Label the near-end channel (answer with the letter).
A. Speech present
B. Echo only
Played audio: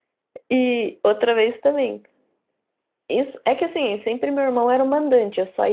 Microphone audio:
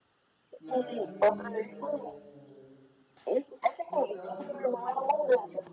A